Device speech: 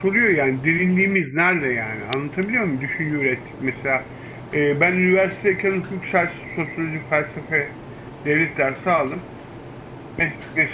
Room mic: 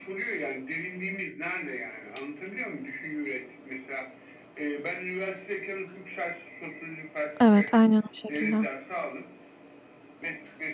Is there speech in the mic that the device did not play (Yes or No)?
Yes